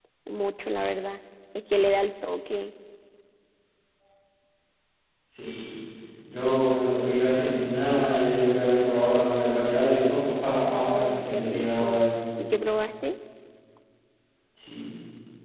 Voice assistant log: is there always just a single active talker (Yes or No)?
No